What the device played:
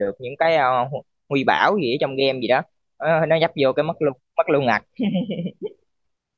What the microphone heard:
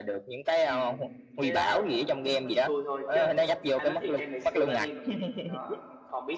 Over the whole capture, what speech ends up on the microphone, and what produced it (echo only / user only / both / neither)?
both